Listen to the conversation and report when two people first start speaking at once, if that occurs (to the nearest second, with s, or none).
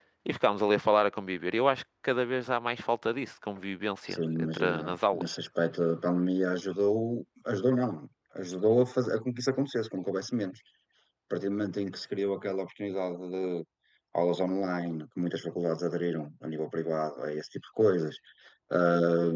4 s